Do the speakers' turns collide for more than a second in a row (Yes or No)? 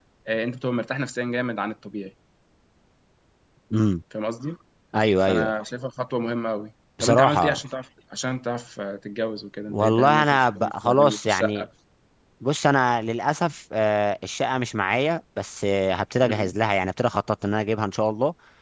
Yes